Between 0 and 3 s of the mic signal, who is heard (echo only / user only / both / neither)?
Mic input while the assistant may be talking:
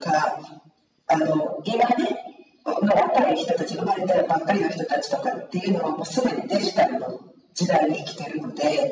echo only